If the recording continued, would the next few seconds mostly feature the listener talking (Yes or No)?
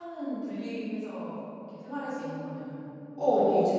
Yes